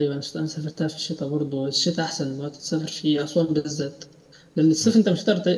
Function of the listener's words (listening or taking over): listening